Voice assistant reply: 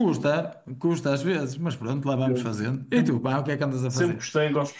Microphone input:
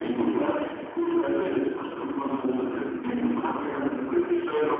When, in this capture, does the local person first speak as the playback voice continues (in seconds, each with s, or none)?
none